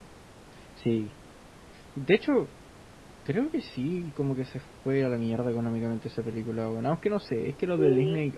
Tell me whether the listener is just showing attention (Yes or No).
Yes